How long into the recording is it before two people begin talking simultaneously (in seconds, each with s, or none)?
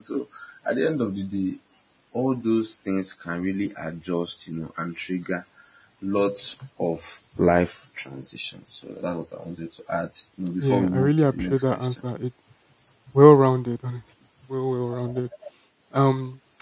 10.6 s